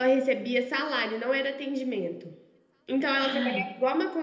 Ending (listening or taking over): listening